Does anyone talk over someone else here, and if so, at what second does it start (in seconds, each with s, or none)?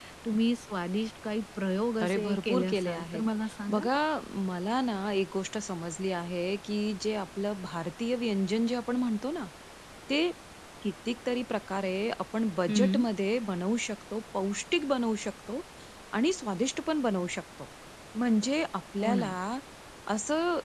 2.0 s